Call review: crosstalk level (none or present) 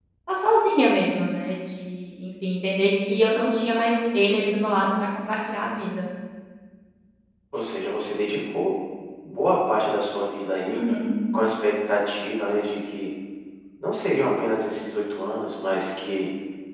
none